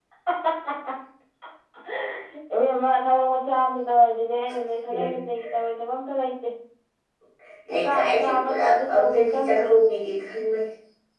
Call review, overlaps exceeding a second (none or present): present